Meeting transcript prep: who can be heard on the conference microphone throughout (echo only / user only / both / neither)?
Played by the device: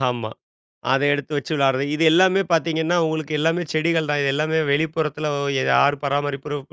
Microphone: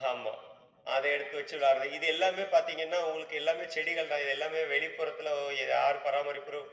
echo only